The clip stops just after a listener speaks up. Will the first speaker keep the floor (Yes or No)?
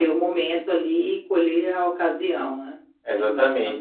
No